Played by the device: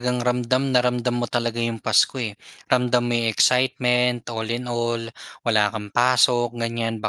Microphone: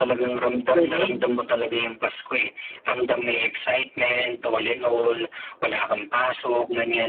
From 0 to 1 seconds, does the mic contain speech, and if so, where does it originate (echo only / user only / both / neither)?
both